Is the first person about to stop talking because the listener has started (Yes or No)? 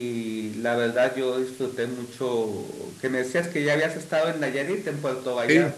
Yes